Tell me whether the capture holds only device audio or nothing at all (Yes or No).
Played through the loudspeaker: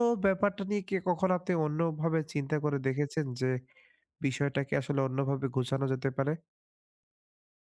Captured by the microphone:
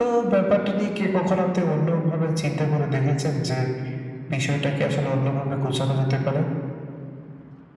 Yes